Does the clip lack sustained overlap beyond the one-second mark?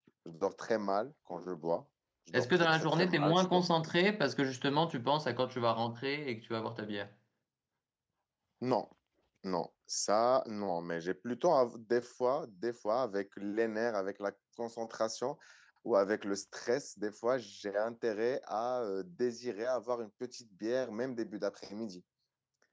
No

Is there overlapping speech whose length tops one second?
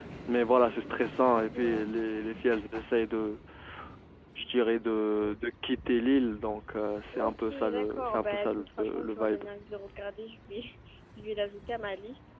Yes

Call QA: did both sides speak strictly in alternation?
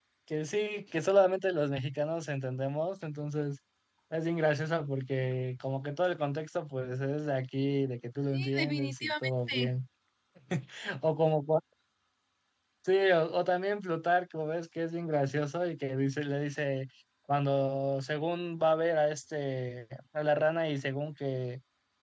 No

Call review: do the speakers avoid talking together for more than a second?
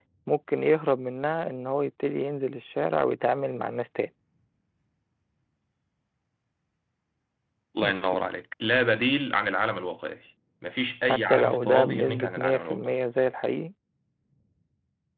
No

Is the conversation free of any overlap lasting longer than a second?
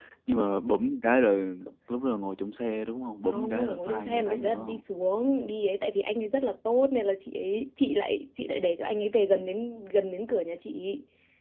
No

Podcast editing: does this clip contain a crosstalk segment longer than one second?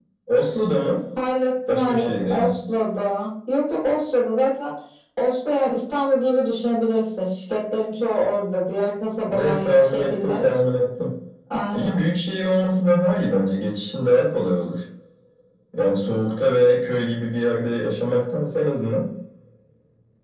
Yes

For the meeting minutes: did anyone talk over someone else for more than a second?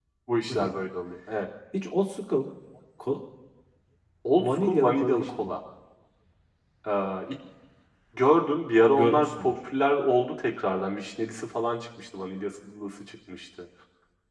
Yes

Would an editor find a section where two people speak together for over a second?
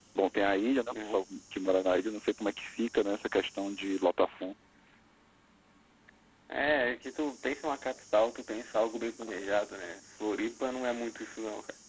No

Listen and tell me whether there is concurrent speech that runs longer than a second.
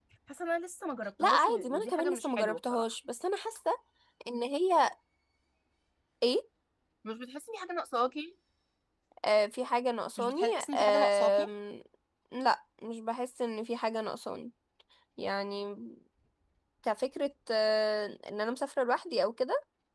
Yes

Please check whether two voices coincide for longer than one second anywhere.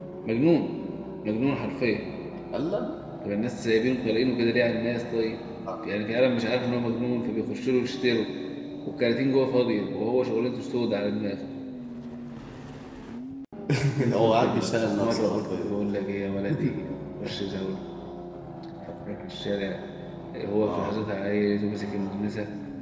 Yes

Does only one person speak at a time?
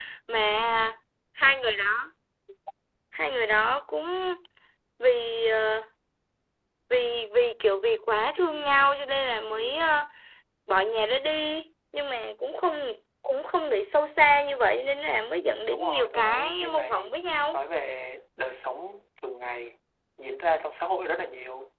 No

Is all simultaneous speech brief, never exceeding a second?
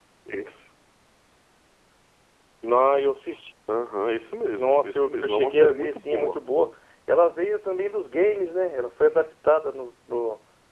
No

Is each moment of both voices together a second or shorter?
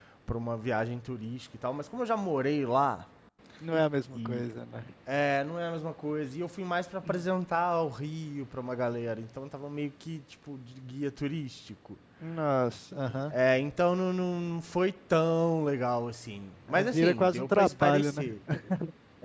No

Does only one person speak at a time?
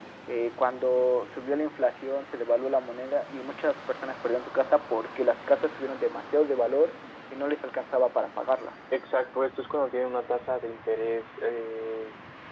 Yes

